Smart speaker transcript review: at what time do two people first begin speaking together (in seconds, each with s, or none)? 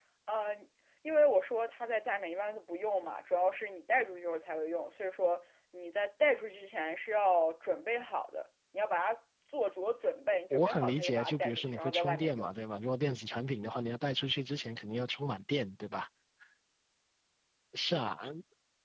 10.5 s